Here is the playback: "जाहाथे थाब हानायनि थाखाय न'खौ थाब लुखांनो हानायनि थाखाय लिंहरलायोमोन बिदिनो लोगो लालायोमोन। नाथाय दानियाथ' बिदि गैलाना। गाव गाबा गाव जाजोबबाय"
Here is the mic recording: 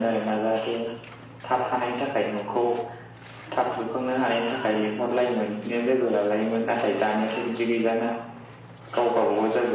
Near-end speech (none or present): none